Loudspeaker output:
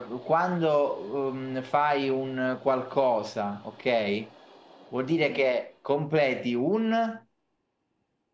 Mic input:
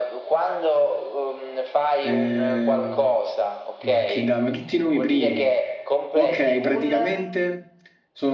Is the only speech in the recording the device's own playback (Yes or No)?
No